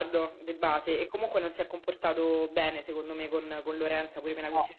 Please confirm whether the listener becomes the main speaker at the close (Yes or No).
No